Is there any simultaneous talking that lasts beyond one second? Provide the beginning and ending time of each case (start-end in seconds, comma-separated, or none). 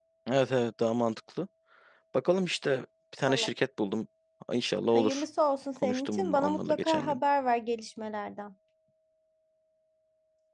5.8-7.2